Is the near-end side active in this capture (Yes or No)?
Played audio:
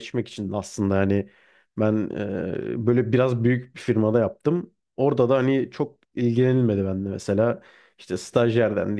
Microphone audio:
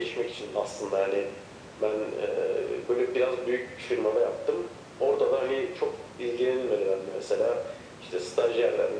No